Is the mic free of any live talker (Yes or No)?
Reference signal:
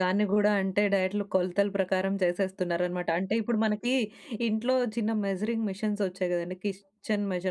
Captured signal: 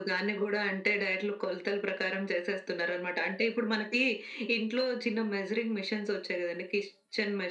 Yes